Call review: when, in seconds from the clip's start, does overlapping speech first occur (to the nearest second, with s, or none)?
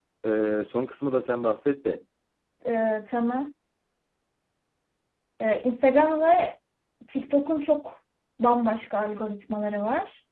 none